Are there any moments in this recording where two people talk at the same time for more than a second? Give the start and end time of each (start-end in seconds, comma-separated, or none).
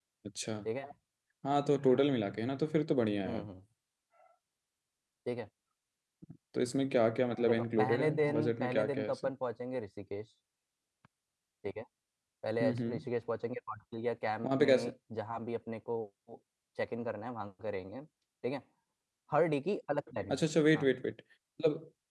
7.5-9.3